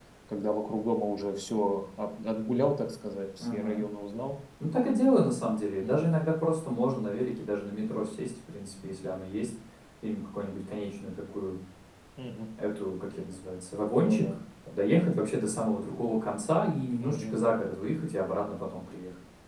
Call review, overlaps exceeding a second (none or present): none